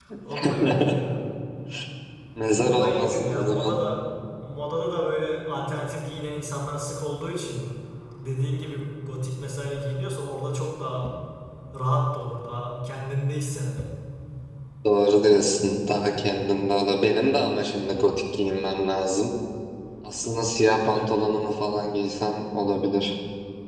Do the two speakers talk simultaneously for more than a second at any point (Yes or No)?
Yes